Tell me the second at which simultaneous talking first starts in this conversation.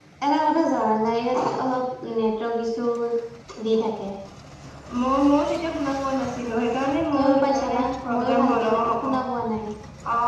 7.1 s

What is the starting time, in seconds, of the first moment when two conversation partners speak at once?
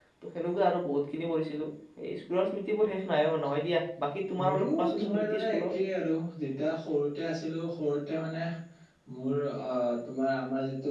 4.4 s

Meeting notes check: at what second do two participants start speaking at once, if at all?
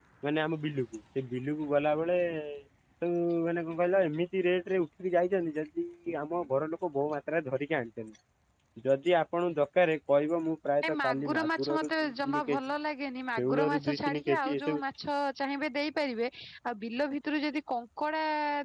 10.8 s

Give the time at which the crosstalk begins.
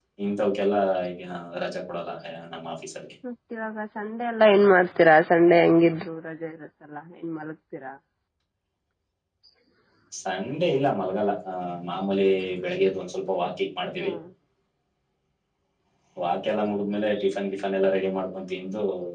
none

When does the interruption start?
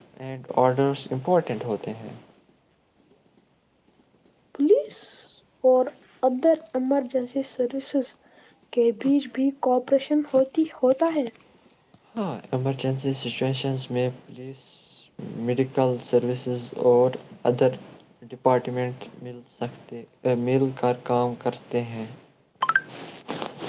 none

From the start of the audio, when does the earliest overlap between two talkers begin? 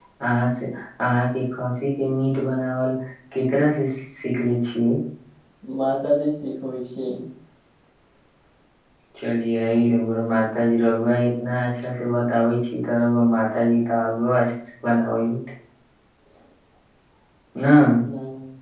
none

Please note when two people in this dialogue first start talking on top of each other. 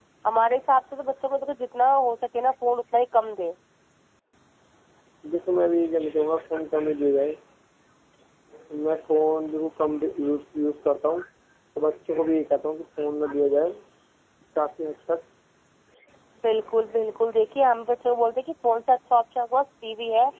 none

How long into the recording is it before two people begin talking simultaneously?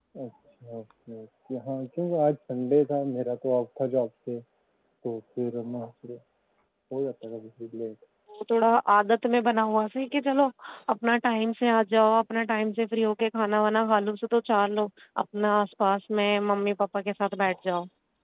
none

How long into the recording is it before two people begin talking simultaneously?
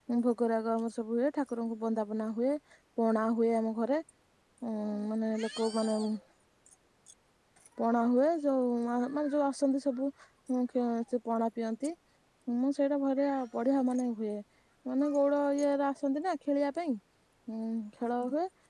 none

